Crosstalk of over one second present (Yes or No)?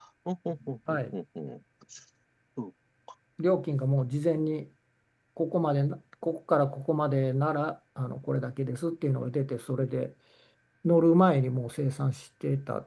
No